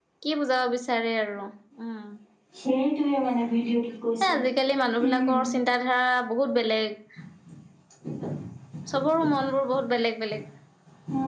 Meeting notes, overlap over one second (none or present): none